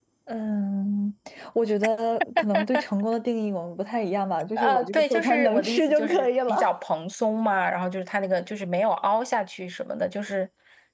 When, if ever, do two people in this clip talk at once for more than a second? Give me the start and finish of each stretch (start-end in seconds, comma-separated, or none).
4.6-6.7